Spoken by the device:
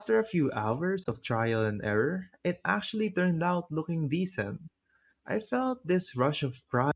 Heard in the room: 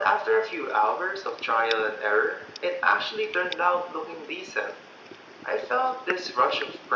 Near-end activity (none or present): none